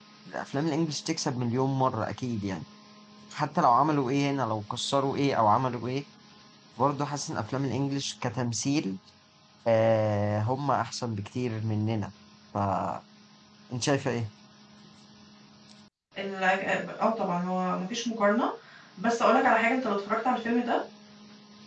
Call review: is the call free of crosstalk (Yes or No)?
Yes